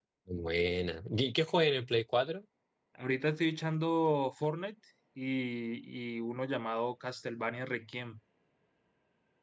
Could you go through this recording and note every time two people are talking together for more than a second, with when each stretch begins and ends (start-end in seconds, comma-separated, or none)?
none